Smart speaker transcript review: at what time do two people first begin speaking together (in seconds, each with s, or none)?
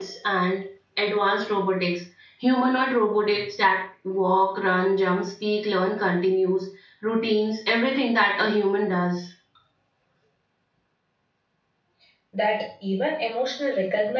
none